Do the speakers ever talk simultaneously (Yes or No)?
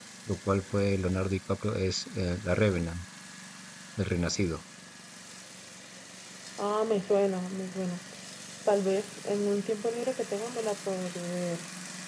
No